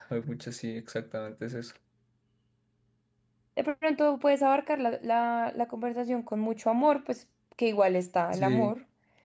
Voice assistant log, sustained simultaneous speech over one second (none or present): none